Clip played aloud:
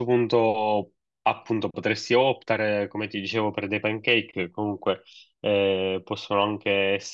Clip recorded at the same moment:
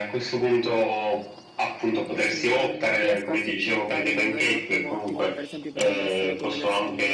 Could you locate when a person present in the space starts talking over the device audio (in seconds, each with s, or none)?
2.1 s